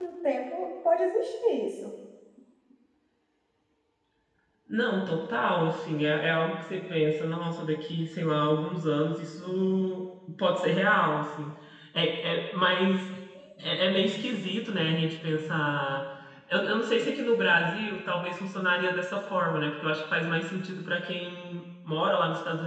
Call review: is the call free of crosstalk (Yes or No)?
Yes